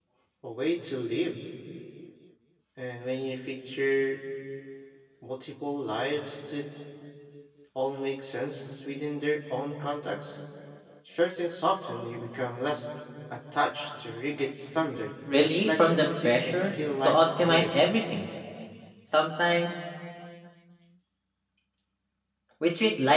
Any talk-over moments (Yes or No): Yes